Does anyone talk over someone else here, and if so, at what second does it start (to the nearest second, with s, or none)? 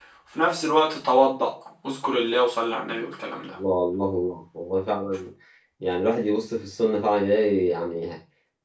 none